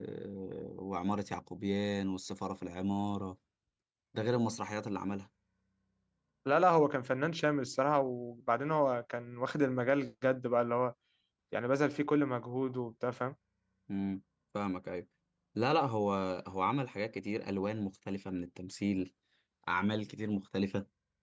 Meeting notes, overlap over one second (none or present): none